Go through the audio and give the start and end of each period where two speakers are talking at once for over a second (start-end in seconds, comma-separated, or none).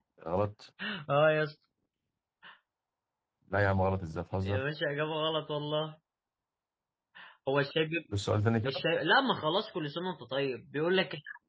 none